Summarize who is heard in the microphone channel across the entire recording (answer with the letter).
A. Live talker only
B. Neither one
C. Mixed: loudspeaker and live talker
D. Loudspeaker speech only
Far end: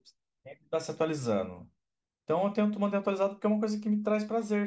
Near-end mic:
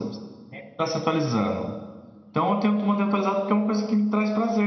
D